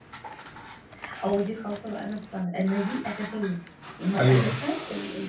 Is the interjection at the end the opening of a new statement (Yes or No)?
No